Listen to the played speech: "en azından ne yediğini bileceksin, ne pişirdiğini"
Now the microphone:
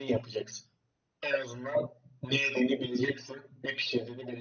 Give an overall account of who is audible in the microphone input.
echo only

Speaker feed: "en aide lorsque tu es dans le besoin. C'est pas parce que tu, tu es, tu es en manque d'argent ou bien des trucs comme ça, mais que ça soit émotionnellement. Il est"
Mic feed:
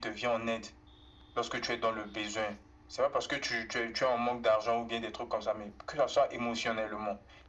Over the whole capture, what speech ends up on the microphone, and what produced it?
echo only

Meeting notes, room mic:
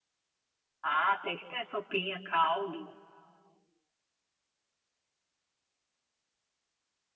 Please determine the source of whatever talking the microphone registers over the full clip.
user only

